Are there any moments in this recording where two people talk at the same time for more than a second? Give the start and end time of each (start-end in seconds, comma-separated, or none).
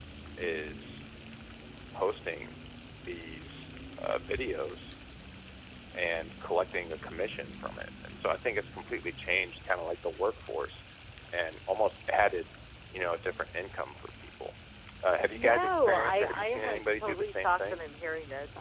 15.2-17.8